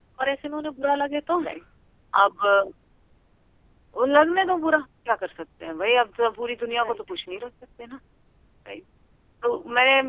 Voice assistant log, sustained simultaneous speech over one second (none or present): none